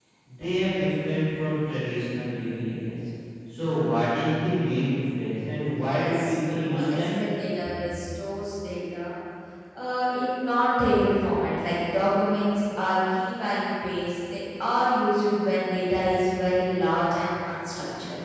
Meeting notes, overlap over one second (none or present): present